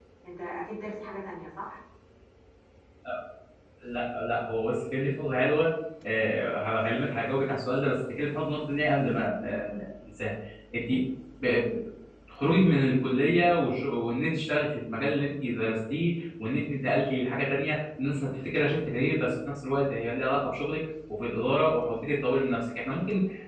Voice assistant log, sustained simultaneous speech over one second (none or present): none